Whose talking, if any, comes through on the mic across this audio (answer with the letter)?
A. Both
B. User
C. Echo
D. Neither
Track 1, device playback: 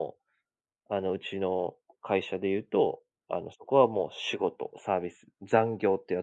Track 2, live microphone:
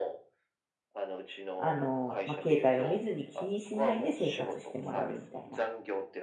A